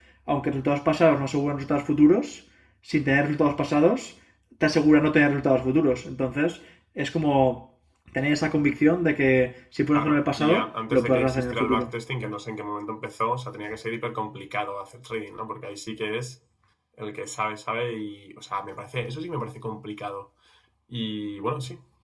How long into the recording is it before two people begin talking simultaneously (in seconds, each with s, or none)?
9.9 s